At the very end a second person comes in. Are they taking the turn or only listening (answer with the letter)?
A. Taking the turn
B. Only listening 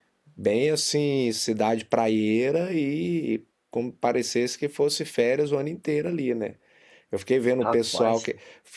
B